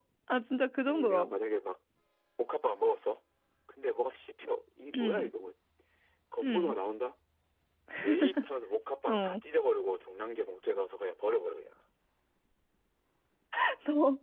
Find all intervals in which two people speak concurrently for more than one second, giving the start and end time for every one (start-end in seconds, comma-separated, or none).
none